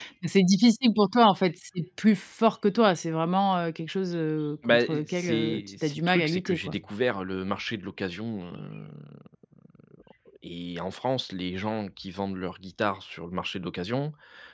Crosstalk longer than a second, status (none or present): present